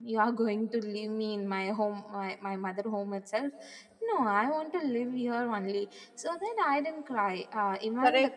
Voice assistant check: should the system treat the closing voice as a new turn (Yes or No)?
Yes